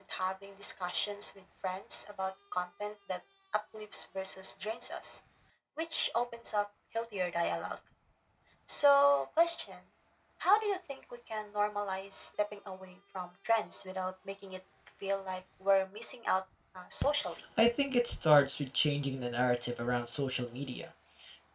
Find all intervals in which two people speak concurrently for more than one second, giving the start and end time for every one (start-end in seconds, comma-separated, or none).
none